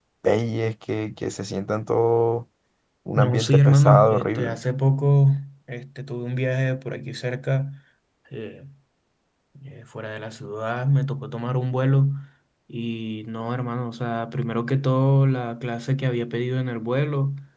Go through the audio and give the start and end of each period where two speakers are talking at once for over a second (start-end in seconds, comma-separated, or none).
3.2-4.6